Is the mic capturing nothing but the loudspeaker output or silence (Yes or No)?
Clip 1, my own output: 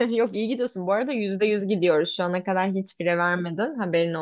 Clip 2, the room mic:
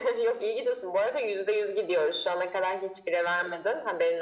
Yes